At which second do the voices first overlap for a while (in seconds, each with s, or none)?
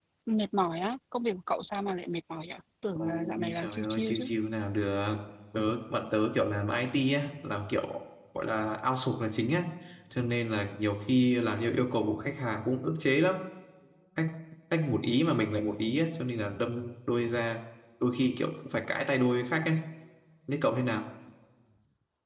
3.0 s